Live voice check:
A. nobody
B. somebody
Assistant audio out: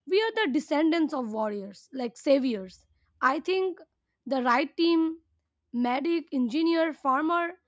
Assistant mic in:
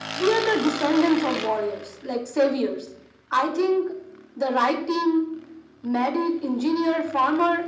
A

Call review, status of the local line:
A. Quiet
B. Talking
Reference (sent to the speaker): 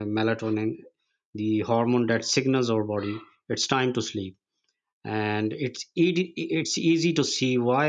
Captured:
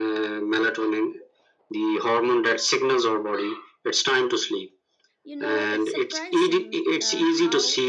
B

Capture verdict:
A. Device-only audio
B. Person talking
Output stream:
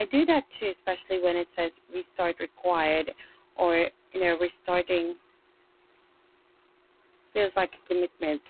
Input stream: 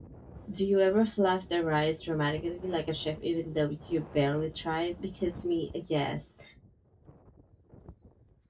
B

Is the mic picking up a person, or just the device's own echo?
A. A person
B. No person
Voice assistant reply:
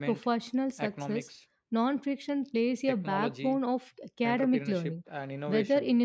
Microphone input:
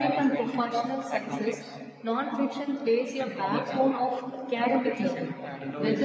B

